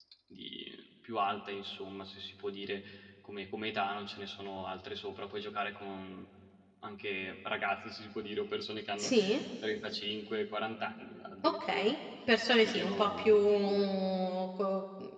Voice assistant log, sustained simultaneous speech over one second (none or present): present